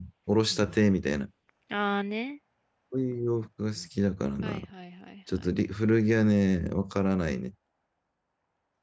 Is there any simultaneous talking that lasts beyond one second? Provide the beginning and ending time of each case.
none

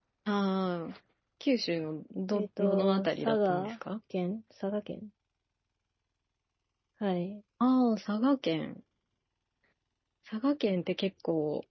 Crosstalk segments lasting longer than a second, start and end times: 2.3-3.7

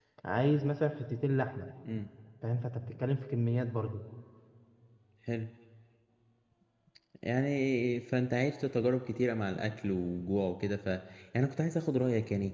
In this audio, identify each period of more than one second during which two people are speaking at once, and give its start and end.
none

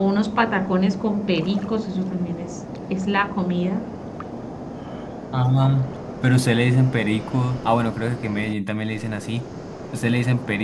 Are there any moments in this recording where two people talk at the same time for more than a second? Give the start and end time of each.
none

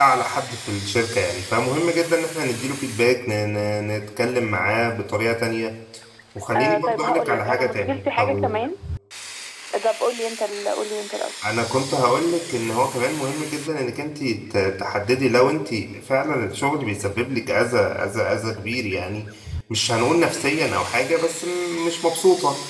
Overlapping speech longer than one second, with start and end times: 6.5-8.3

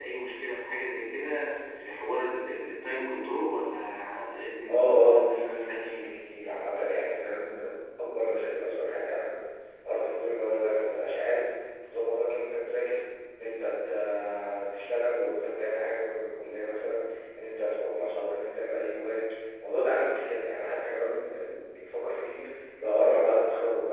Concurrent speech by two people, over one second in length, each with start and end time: 4.7-5.9

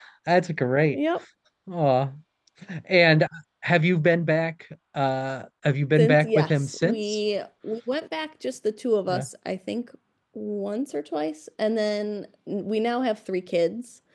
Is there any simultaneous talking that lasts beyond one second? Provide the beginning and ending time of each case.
6.0-7.2

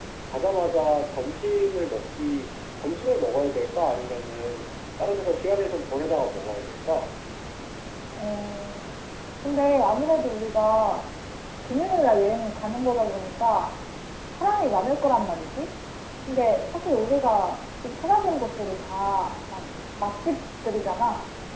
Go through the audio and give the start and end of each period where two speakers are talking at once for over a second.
none

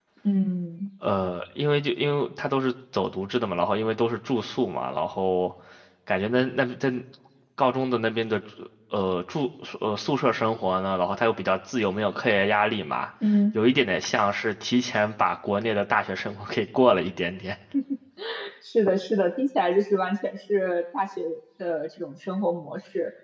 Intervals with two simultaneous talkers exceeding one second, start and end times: none

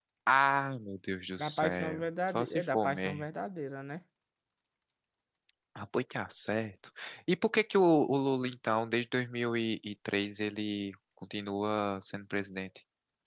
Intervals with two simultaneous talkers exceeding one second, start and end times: 1.4-3.2

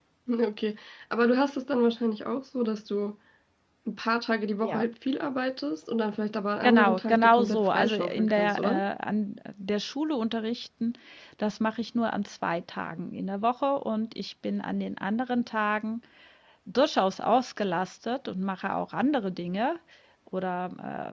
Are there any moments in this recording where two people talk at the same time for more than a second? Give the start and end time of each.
6.6-8.8

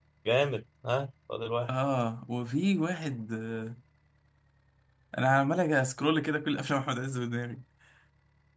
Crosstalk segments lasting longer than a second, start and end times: none

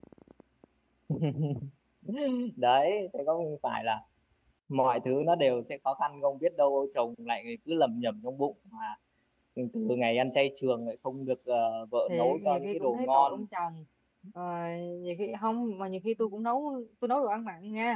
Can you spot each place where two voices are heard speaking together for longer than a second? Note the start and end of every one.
12.1-13.4

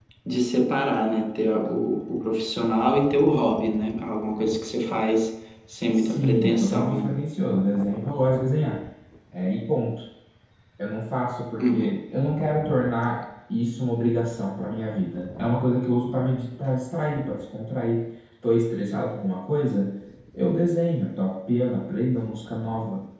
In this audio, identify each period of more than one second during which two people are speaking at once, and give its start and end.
5.9-7.1

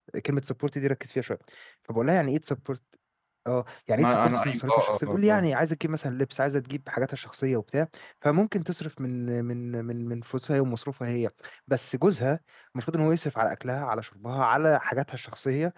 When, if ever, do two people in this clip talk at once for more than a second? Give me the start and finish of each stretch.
4.0-5.4

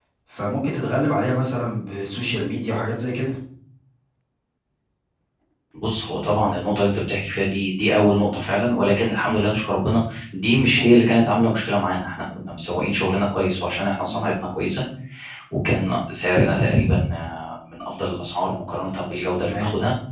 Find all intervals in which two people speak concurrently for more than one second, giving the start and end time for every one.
none

